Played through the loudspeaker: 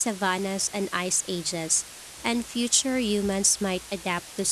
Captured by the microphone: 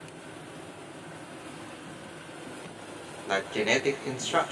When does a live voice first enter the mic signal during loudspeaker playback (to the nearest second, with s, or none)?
3 s